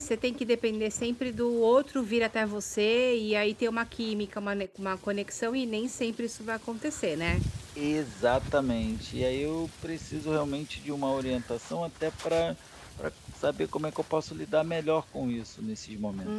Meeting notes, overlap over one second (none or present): none